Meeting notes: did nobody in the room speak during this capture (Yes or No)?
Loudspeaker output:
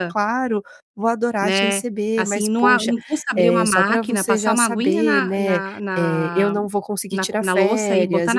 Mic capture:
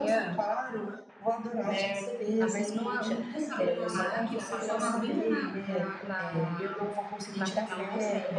Yes